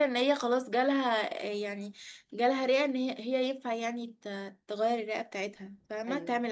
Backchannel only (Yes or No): No